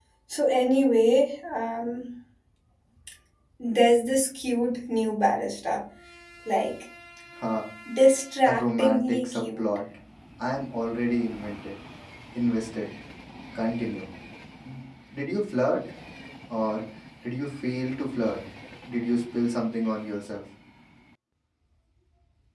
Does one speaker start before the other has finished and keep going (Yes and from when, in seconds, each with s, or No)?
Yes, from 8.4 s